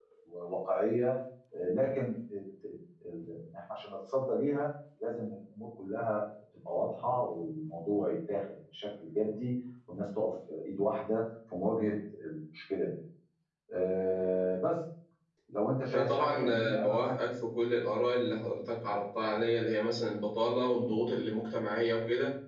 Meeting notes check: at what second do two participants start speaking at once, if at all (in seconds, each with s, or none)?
15.9 s